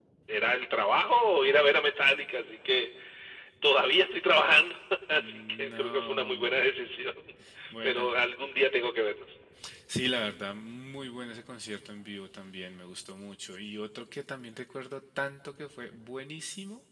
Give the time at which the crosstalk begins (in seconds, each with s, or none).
5.2 s